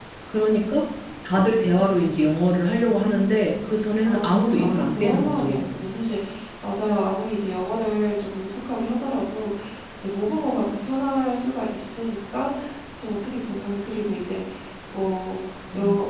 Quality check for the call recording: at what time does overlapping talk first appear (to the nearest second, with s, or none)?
4 s